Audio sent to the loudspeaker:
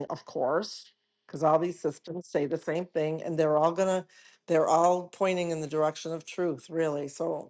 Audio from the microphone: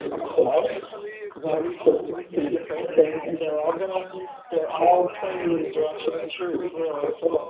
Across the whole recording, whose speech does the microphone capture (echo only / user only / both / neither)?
both